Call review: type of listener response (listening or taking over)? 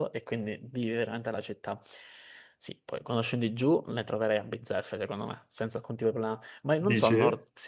listening